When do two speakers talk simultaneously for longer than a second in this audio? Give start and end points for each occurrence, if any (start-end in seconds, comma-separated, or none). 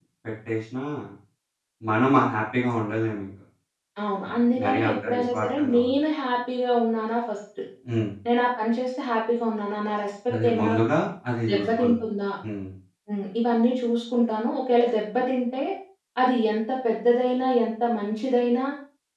4.3-5.9